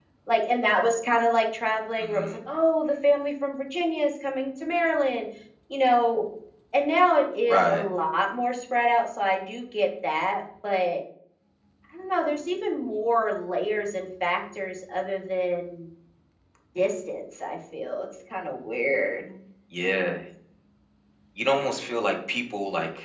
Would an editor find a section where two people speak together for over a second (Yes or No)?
No